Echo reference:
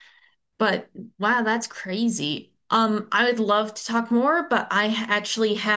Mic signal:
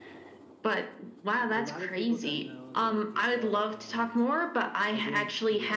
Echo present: Yes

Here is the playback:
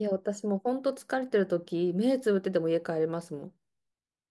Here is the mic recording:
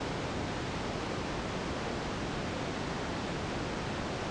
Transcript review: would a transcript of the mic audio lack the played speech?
Yes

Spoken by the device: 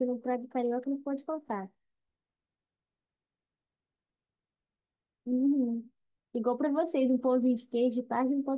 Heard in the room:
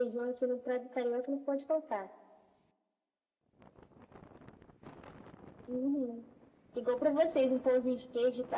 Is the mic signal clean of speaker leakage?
No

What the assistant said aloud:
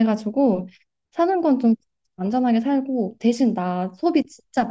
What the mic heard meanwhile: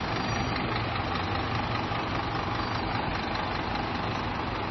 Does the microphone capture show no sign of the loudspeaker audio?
Yes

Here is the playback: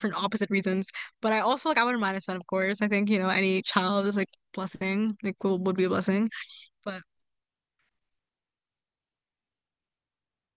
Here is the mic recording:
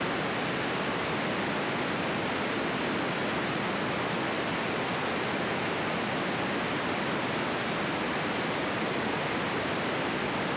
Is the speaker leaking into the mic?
No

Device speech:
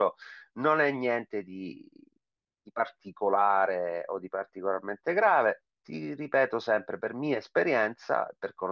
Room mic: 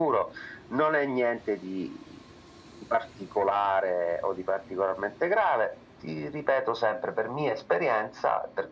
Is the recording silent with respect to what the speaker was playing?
No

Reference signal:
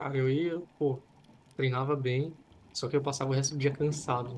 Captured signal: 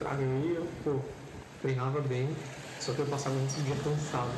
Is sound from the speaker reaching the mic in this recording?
Yes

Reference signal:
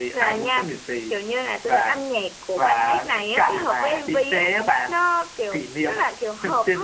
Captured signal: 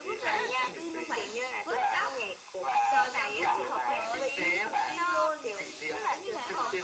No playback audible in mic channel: No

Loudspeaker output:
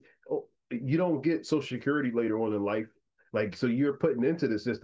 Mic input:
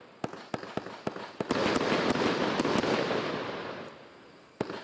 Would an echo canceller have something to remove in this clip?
No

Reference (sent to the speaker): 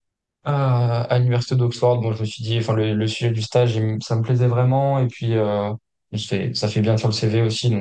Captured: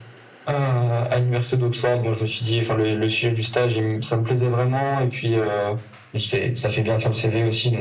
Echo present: Yes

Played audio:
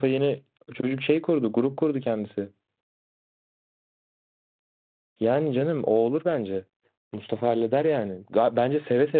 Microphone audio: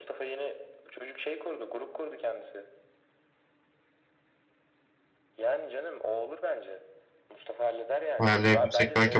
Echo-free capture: No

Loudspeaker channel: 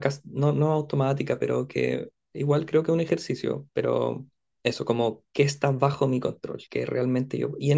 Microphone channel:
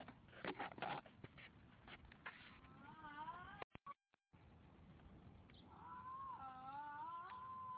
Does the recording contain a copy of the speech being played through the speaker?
No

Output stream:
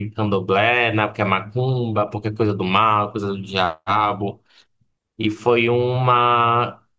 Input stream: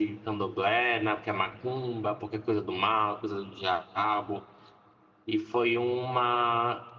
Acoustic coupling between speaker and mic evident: Yes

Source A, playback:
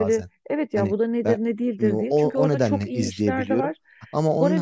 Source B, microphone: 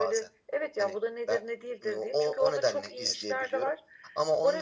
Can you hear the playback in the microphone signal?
Yes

